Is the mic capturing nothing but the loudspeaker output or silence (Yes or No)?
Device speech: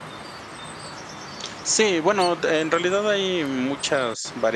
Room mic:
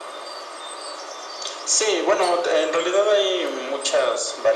Yes